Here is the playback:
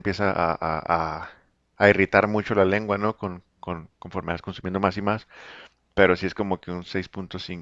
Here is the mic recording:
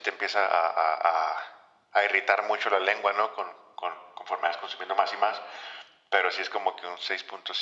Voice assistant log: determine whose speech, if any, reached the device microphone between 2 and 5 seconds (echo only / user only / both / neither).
echo only